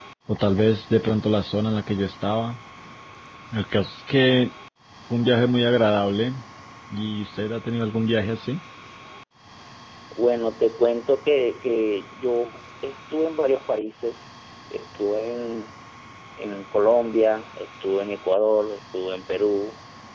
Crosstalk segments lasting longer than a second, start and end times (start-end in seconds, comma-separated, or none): none